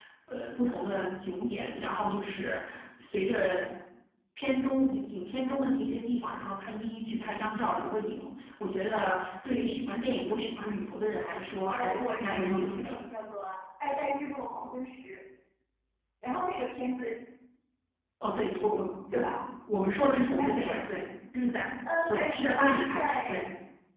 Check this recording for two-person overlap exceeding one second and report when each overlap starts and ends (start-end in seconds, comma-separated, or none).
11.7-13.0, 22.1-23.4